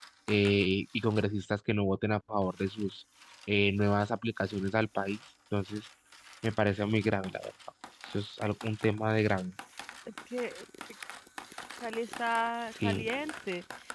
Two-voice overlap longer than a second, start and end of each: none

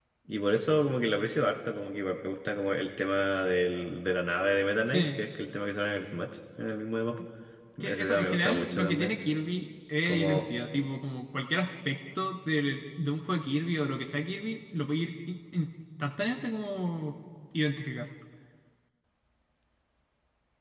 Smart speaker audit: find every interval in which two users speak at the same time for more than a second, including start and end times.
7.8-9.2

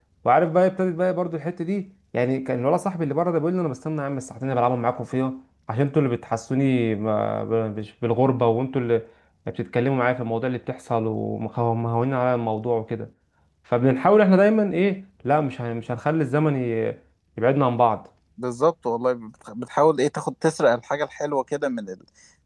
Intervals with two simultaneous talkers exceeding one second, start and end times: none

